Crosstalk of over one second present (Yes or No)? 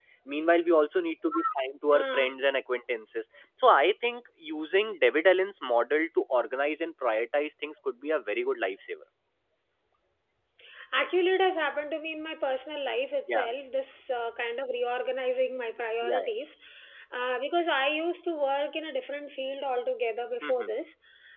No